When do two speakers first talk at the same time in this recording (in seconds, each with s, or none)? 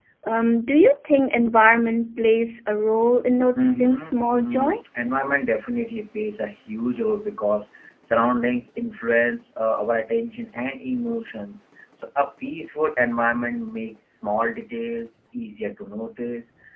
3.5 s